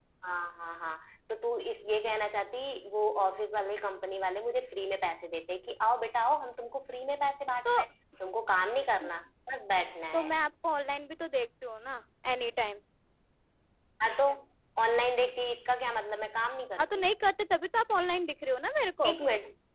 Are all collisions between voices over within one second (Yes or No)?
Yes